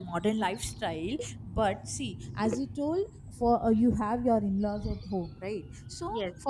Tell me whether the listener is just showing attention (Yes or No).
Yes